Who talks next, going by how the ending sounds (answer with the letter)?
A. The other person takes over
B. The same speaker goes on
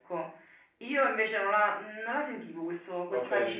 A